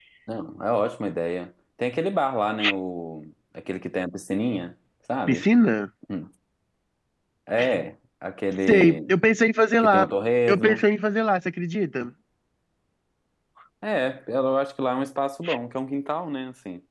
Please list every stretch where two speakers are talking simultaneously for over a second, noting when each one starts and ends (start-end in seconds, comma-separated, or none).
none